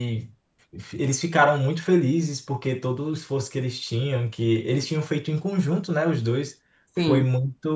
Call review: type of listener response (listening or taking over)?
listening